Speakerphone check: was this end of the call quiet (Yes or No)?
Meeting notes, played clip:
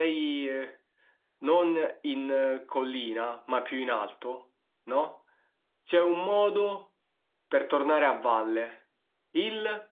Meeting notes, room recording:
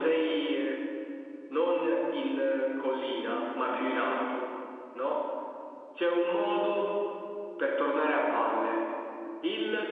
Yes